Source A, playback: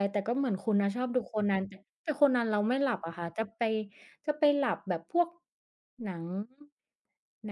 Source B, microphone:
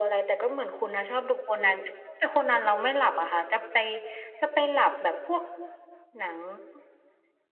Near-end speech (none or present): none